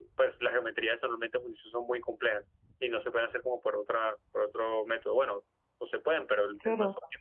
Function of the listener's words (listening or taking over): listening